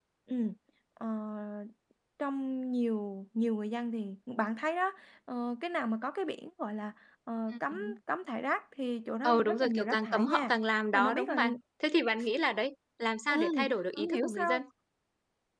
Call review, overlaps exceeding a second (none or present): present